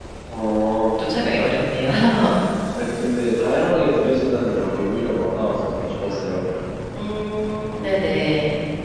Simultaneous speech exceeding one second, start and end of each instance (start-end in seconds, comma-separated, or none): none